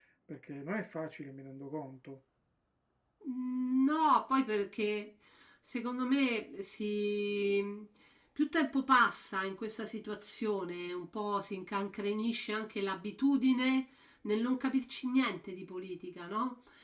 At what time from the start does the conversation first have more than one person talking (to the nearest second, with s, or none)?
none